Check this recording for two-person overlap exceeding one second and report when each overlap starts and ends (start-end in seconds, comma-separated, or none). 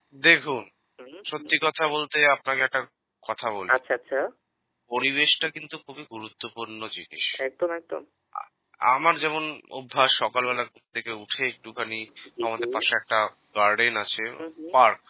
none